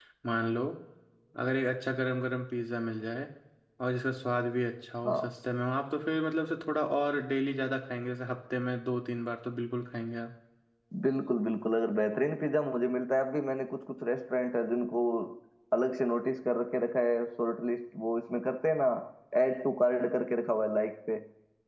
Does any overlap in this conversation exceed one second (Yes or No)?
No